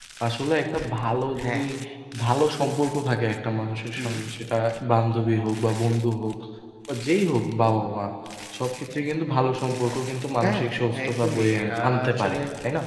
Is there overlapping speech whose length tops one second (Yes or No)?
Yes